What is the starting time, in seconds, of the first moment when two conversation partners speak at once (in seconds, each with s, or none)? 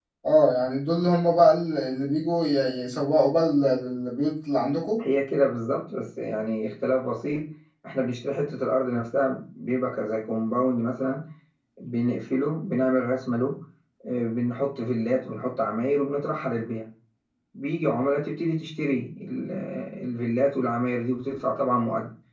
none